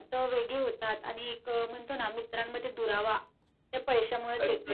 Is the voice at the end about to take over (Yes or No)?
Yes